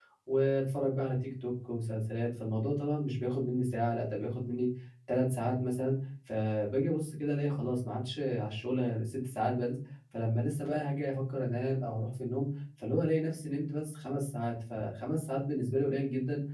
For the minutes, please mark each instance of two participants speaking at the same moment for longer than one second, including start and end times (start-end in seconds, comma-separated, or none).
none